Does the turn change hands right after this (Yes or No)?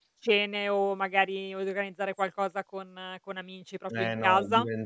Yes